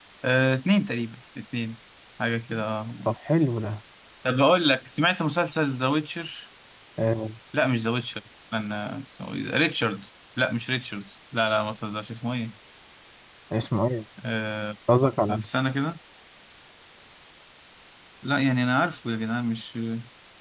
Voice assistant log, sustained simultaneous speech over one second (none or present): none